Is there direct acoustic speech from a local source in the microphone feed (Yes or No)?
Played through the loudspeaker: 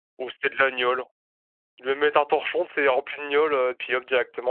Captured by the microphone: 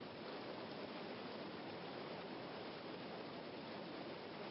No